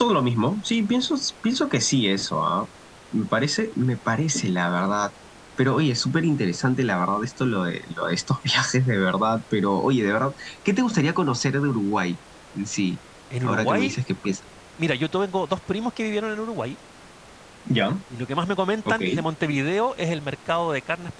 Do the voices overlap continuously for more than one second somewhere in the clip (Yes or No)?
No